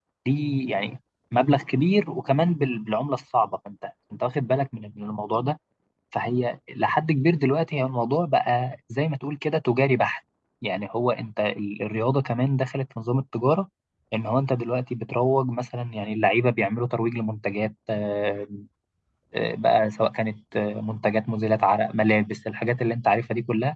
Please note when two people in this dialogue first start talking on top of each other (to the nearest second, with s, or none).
none